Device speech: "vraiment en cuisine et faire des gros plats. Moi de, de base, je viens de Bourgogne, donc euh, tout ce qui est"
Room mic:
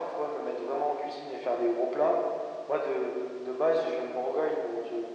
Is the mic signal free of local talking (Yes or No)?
Yes